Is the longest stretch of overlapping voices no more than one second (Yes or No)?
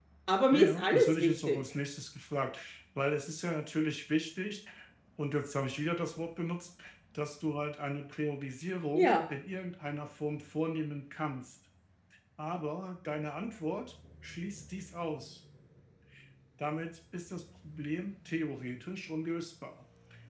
No